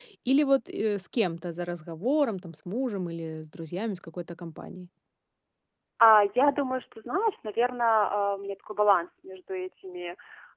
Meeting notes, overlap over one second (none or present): none